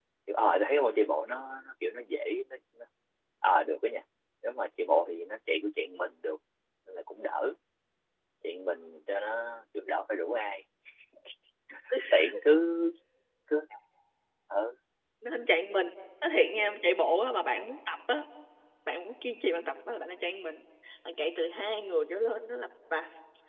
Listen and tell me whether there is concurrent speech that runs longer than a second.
No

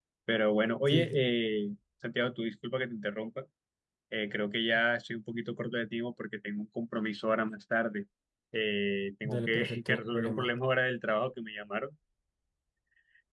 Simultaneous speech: Yes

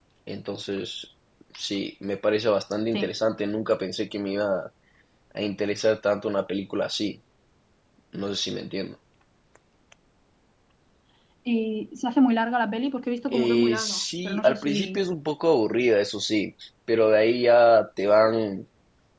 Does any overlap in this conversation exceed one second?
Yes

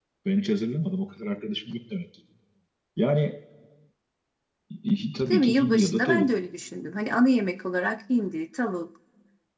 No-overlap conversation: No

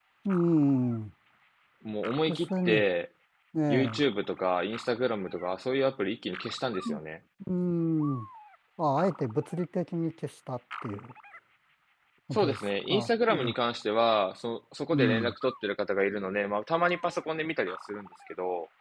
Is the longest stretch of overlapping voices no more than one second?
No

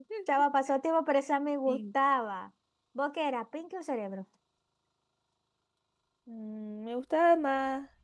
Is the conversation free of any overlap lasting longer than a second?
Yes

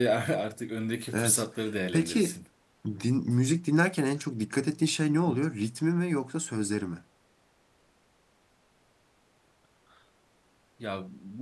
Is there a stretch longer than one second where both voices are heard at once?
No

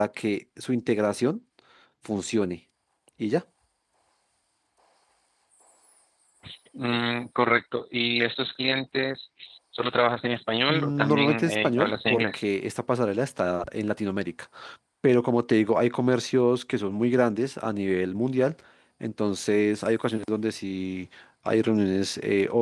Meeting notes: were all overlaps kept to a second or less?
No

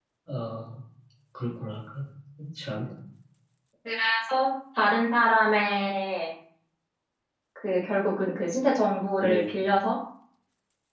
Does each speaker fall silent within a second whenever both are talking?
Yes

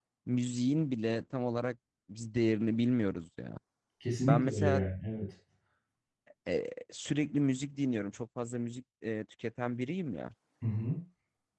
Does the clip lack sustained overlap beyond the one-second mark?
Yes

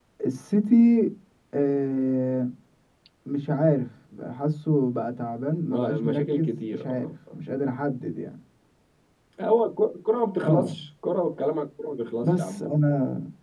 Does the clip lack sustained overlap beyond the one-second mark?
No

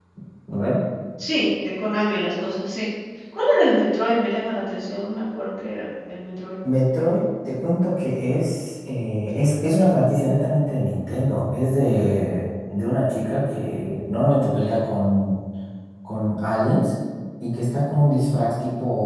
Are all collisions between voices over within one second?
Yes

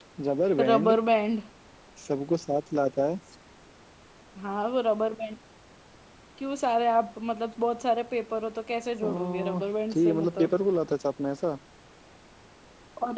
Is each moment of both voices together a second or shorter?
No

